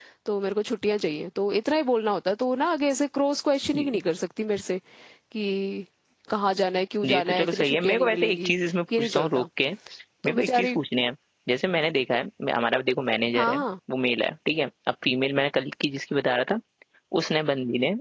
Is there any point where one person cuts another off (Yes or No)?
Yes